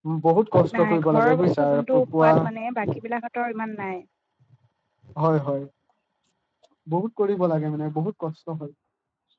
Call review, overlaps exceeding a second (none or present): present